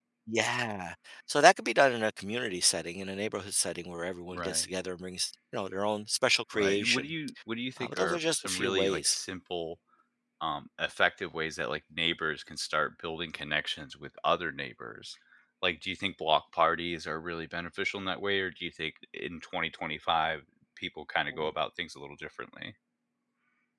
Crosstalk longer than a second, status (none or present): present